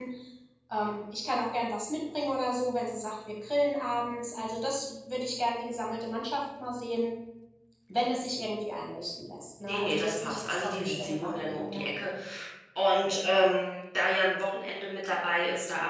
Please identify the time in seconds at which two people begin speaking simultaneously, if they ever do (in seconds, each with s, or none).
9.6 s